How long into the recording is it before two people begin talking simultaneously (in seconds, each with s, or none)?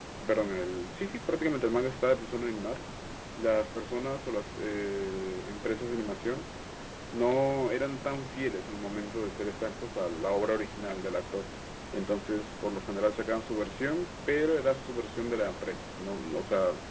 none